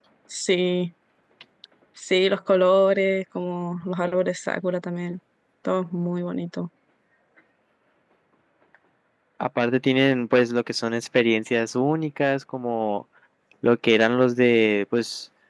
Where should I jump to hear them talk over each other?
none

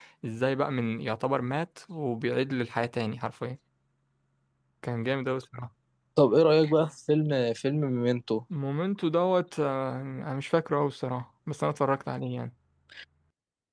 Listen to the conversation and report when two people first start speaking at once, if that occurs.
none

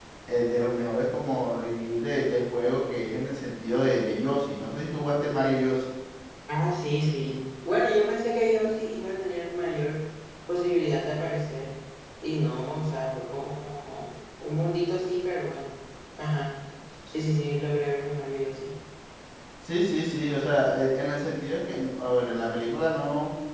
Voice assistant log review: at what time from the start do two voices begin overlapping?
none

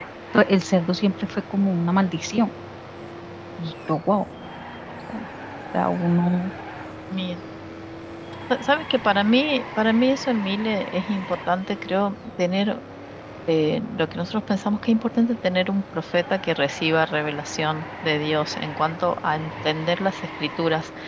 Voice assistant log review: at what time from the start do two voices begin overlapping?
none

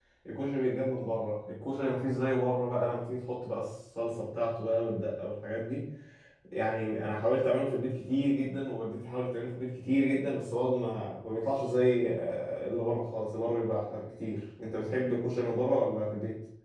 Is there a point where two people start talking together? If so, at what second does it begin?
none

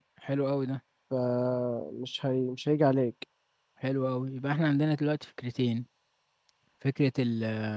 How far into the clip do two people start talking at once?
none

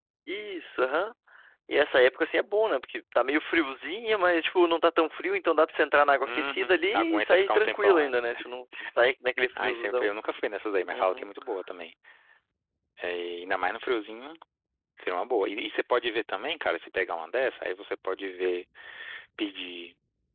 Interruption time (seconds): 6.2 s

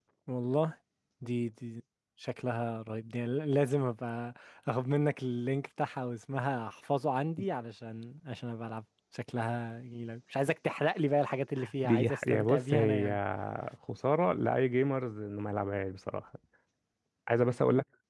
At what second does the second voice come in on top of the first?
11.8 s

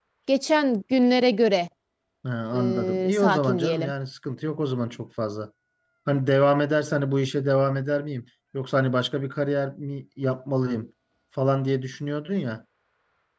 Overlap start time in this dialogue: 2.5 s

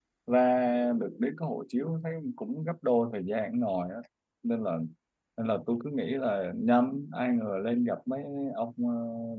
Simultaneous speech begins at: none

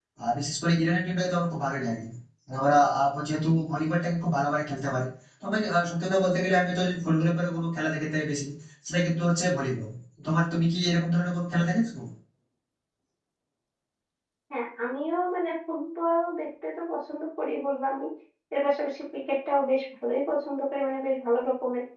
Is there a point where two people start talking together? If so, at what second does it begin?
none

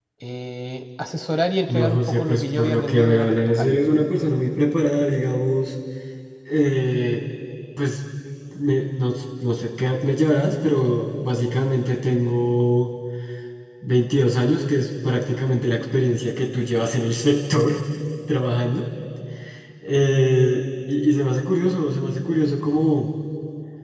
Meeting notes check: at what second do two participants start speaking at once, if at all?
1.7 s

